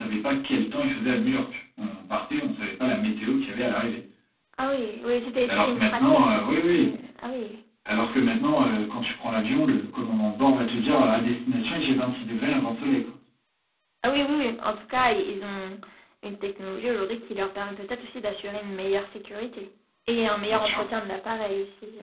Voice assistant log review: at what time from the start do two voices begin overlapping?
5.5 s

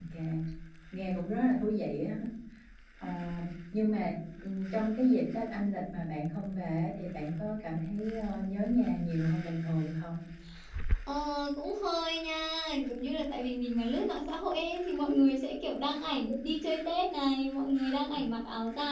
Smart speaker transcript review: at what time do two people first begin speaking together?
none

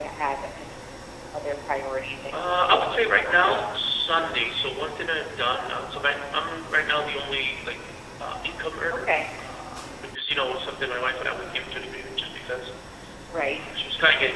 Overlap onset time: 2.4 s

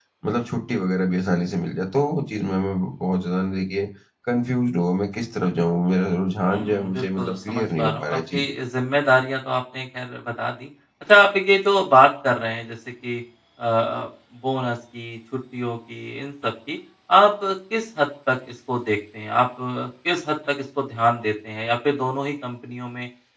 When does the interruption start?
6.5 s

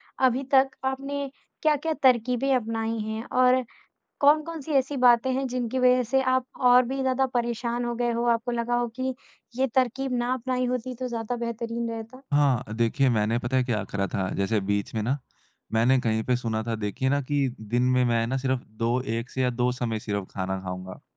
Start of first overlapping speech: none

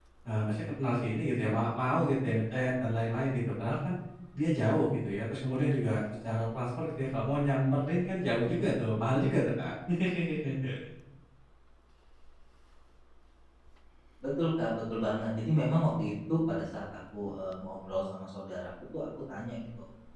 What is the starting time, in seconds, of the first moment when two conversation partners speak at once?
none

